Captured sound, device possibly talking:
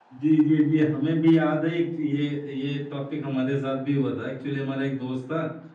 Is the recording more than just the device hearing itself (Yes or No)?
Yes